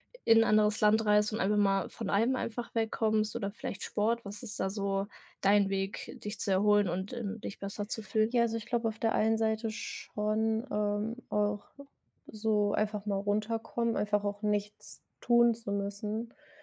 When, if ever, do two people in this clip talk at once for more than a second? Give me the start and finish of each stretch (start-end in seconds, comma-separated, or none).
none